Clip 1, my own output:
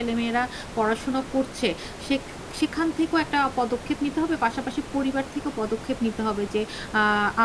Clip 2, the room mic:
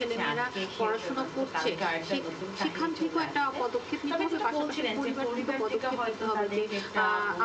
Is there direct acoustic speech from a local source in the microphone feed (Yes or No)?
Yes